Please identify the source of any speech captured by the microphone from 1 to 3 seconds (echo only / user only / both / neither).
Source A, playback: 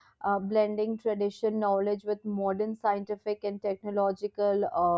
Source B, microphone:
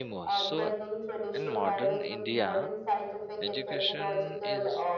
both